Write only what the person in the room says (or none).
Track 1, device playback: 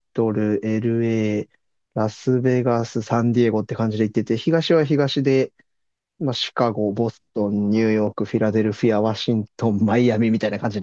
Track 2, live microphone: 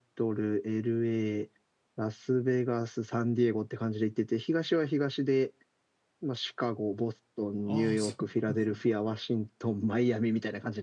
ああ、そうなんですね。